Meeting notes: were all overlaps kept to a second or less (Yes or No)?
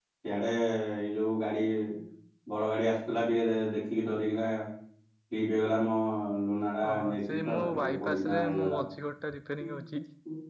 No